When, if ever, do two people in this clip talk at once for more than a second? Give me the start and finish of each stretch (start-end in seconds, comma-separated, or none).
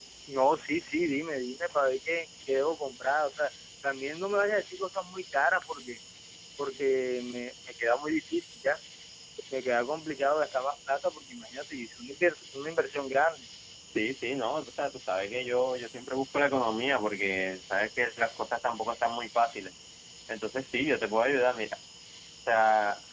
none